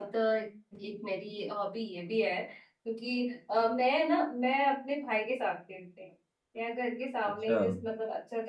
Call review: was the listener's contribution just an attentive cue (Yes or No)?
Yes